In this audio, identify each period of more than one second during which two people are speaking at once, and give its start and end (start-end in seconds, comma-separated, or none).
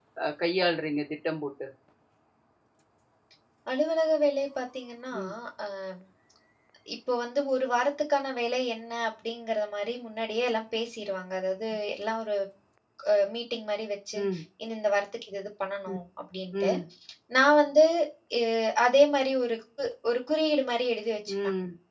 none